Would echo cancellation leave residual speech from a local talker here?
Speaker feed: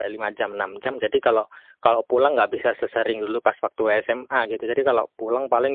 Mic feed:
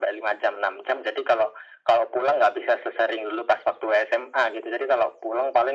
No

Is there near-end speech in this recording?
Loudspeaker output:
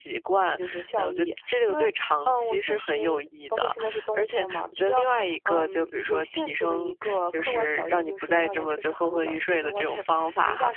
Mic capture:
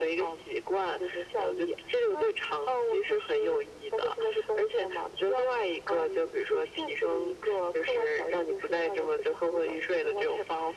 No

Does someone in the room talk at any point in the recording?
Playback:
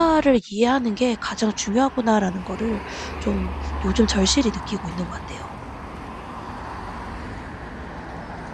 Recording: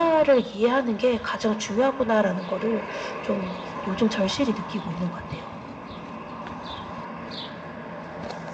No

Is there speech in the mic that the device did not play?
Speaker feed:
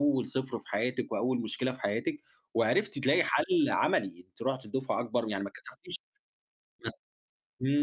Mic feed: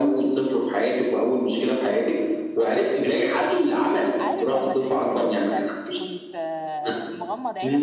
Yes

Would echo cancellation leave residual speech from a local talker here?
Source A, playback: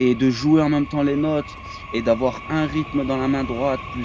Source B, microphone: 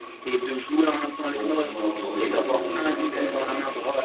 Yes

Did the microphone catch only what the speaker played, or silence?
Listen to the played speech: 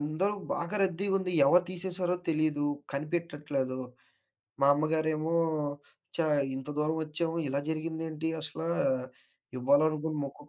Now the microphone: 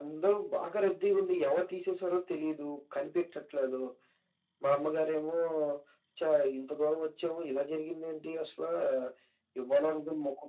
Yes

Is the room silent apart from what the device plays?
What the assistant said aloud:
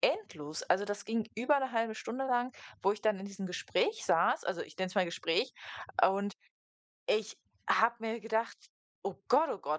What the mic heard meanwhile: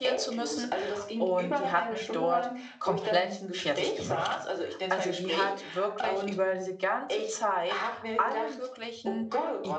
No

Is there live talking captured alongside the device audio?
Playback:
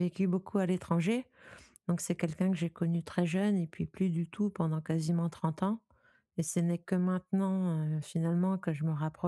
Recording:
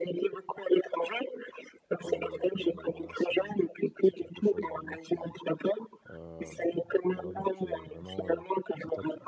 Yes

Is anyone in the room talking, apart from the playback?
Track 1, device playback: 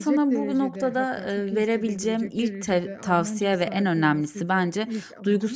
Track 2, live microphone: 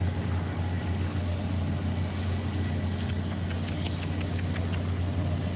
No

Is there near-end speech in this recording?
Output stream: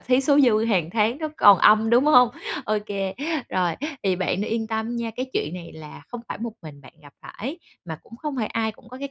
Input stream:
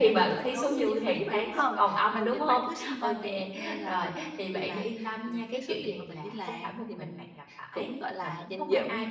Yes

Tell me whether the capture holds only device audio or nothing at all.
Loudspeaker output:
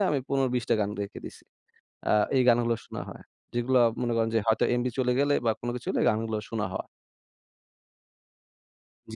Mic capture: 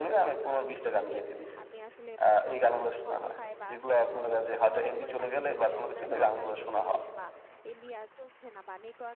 No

